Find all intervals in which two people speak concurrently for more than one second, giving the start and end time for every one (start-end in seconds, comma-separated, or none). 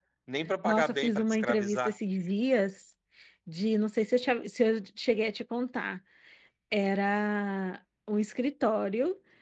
0.6-1.9